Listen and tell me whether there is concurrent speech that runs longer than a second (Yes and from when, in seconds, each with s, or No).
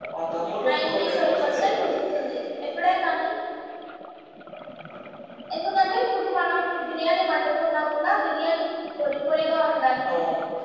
Yes, from 0.7 s